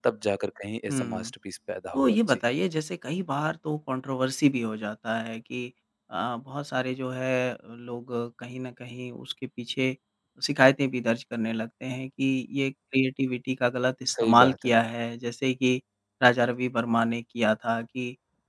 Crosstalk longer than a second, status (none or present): none